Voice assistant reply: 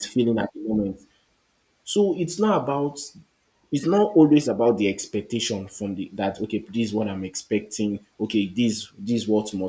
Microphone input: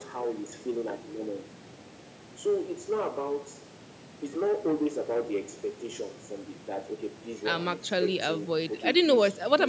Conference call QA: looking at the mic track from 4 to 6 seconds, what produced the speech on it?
echo only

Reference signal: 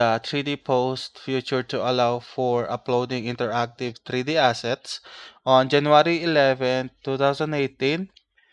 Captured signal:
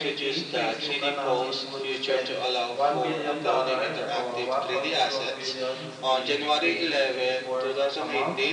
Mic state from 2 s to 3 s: both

